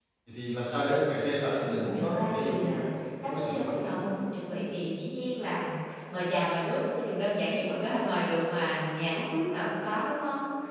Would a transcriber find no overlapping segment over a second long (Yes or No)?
No